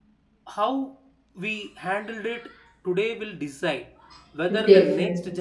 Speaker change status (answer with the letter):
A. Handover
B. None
B